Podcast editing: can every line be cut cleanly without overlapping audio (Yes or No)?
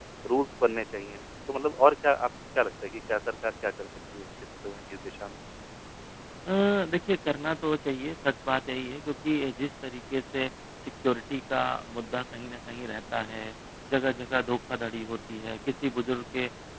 Yes